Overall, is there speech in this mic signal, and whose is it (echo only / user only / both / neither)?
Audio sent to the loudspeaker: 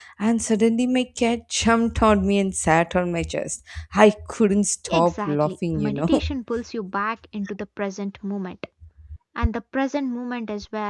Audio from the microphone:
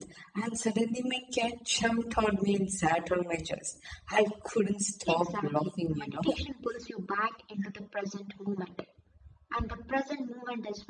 echo only